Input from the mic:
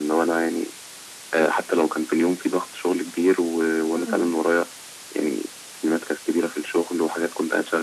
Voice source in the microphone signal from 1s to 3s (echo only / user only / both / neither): echo only